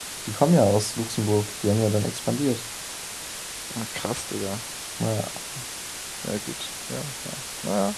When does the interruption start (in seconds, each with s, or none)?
none